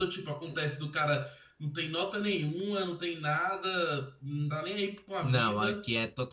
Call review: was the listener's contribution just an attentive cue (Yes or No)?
No